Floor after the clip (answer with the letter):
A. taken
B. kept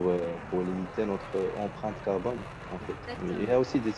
B